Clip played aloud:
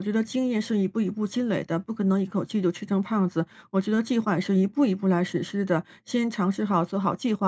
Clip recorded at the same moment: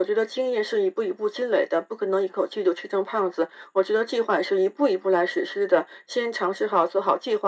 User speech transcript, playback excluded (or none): none